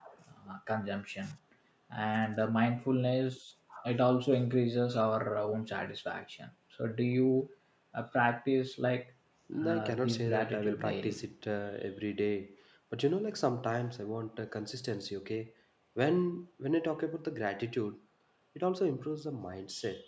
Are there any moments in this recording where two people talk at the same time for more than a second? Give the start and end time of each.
9.7-11.2

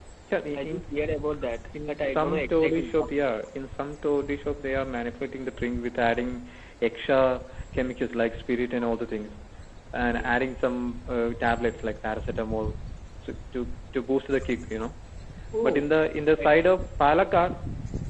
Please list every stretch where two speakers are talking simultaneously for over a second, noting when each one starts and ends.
1.9-3.1

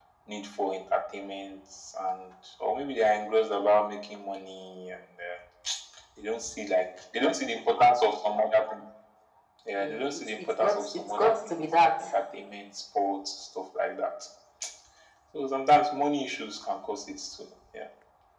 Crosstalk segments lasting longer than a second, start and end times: 9.8-11.9

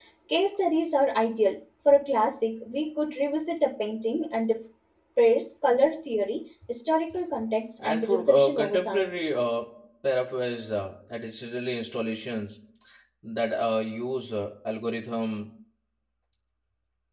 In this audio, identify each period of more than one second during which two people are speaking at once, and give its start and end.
7.8-9.2

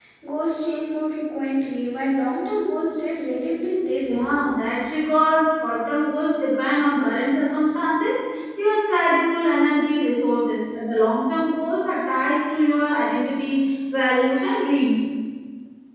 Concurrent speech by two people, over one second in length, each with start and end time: none

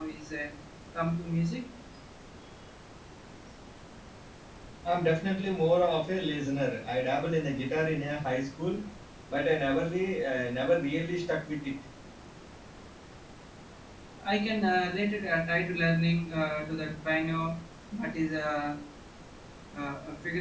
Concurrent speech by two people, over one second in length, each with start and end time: none

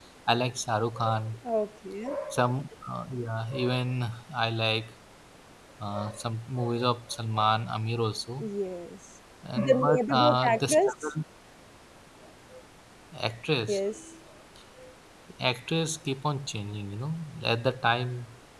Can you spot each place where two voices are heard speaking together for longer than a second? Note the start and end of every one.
9.6-11.1

